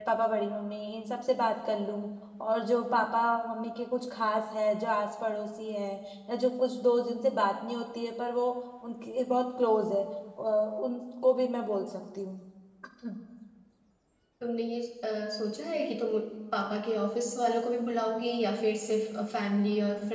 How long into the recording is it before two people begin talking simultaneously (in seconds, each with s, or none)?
none